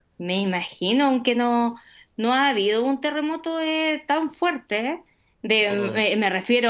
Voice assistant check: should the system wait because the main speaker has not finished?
Yes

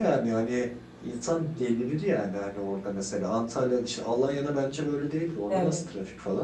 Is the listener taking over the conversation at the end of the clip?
Yes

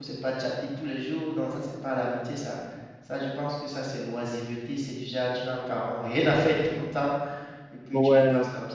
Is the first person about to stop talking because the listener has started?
No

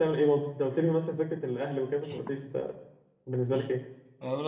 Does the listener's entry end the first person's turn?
Yes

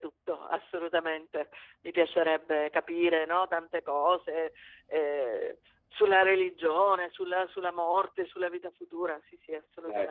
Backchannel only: No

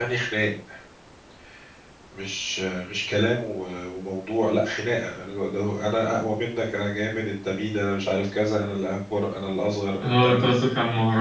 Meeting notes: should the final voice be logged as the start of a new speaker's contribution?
Yes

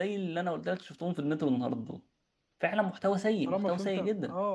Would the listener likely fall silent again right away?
No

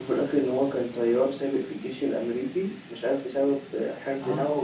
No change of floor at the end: Yes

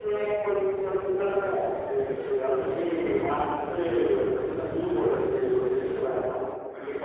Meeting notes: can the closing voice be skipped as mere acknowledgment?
No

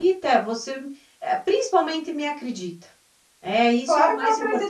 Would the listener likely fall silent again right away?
No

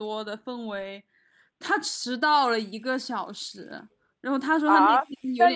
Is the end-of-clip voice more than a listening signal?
Yes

